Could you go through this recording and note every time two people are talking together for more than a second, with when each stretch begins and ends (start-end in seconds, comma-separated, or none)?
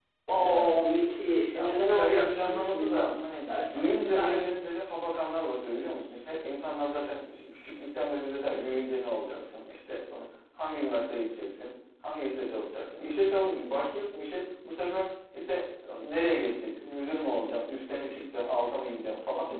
1.5-4.5